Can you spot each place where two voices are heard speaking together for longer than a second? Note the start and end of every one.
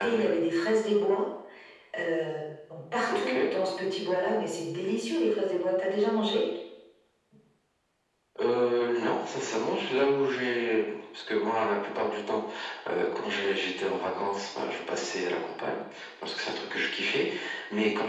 none

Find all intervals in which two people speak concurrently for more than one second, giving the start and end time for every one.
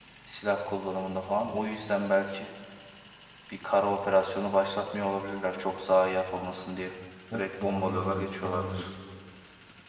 7.3-8.9

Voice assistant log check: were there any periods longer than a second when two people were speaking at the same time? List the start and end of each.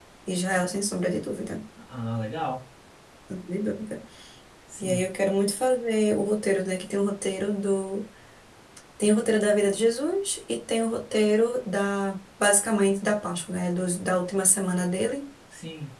none

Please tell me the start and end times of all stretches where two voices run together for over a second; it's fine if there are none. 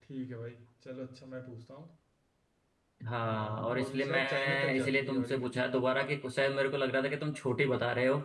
3.2-5.7

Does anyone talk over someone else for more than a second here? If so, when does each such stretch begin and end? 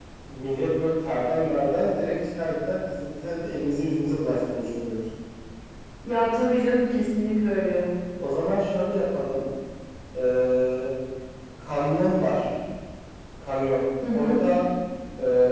none

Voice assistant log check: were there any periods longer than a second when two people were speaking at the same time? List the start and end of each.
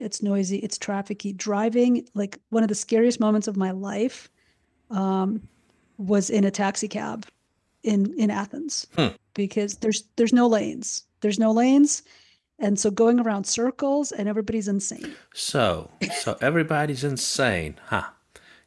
none

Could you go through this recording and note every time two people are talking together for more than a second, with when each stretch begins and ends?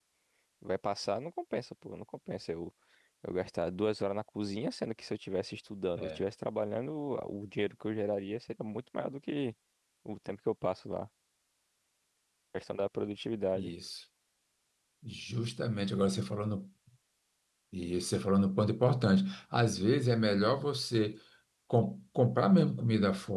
none

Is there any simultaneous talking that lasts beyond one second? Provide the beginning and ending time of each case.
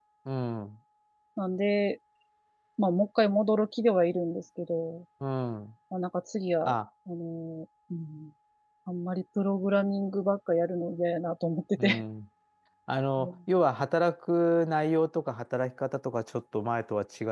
none

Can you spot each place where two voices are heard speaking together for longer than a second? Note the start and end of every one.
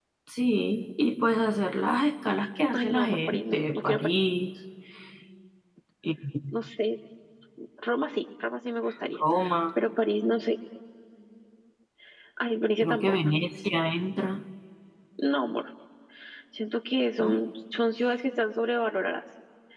2.7-4.2

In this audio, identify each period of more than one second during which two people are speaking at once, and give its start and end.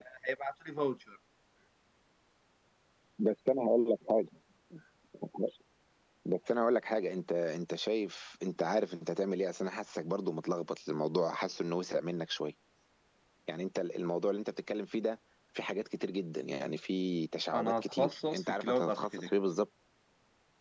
17.5-19.3

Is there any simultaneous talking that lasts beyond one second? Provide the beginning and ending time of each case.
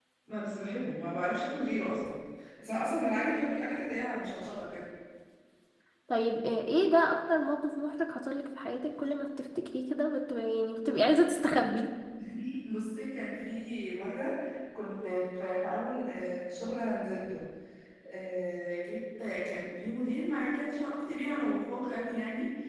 none

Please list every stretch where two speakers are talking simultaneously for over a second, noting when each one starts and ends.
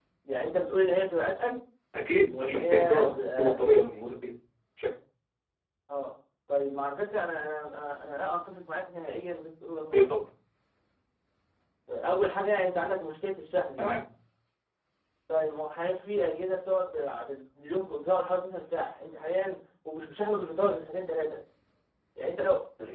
2.3-3.6

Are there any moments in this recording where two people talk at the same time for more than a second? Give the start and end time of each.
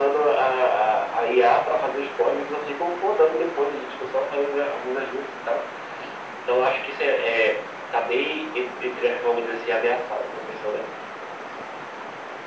none

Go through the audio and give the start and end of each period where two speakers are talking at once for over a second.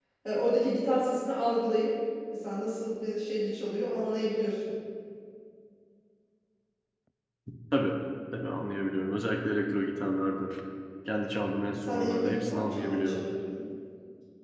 11.8-13.2

